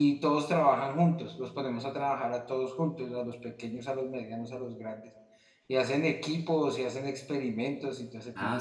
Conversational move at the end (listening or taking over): taking over